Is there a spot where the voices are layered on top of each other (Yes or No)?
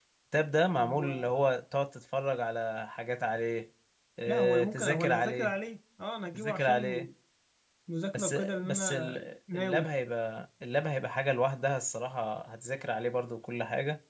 Yes